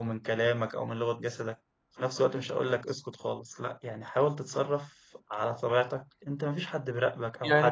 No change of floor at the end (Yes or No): No